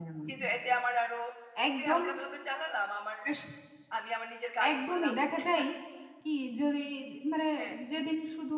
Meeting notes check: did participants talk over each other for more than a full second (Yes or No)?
No